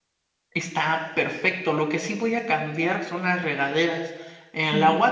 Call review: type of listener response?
listening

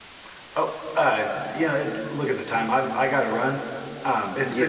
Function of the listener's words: taking over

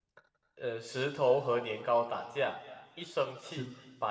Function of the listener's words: listening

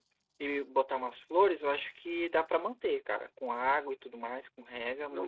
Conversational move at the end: taking over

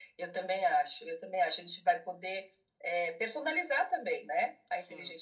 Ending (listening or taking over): listening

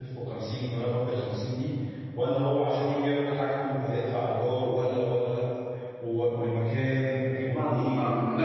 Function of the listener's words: taking over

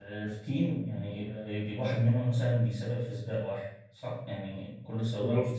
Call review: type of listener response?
taking over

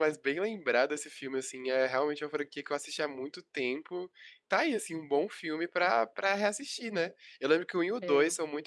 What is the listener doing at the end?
listening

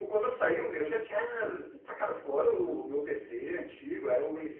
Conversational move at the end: listening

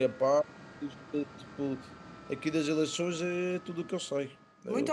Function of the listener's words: taking over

